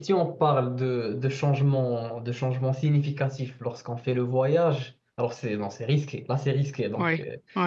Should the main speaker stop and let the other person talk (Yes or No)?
No